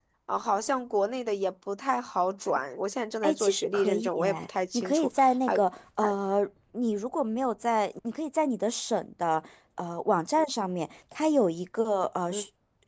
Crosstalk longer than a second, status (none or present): present